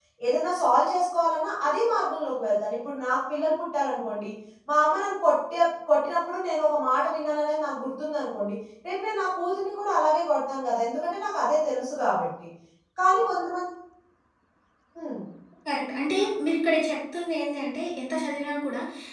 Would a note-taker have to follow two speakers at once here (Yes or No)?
No